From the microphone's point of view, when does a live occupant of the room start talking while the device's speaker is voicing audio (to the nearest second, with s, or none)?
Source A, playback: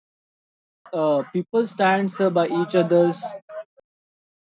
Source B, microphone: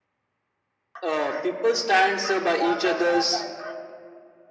none